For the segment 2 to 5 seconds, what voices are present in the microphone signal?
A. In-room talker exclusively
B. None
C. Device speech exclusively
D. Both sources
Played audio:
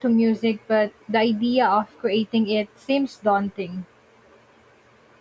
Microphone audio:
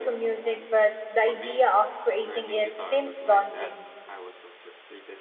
D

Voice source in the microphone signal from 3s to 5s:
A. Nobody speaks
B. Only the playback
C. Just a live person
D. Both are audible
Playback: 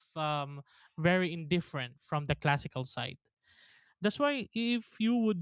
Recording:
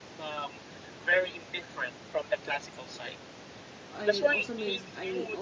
D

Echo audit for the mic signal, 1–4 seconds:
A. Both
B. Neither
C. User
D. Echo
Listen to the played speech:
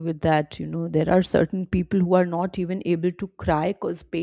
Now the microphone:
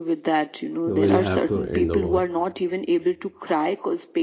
A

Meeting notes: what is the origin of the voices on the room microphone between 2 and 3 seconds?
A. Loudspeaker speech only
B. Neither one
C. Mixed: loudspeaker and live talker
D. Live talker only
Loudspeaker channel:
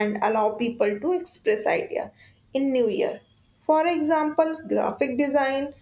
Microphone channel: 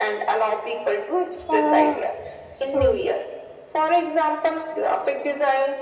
C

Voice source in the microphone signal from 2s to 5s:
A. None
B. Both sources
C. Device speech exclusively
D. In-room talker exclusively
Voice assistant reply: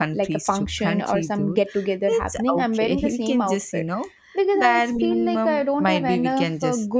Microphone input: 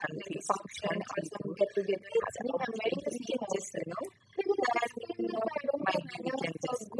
C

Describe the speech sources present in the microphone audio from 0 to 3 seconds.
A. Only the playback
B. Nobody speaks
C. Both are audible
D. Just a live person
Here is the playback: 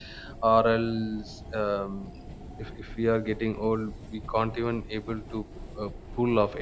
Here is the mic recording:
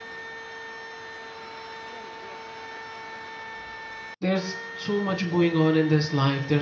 B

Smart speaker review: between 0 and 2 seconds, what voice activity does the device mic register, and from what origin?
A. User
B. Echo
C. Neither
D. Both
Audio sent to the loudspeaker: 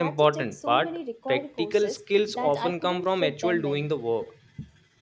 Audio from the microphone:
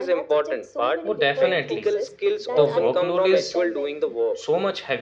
D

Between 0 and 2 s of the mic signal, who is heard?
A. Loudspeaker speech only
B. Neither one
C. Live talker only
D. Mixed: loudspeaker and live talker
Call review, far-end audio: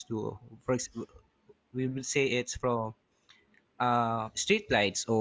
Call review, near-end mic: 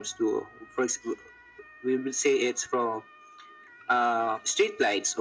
A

